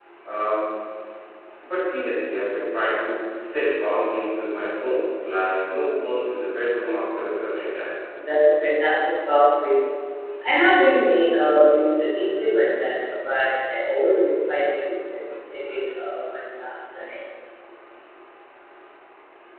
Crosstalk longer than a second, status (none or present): none